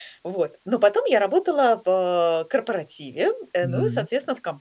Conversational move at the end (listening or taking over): listening